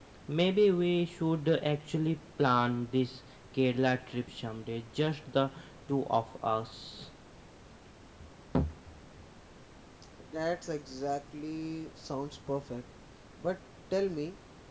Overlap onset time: none

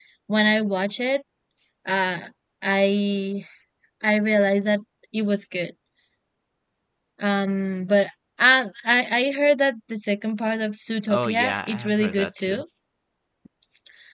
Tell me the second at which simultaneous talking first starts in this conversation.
11 s

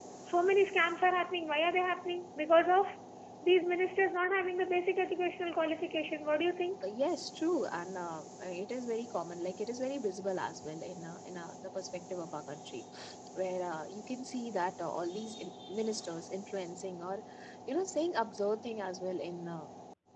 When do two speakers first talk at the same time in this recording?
none

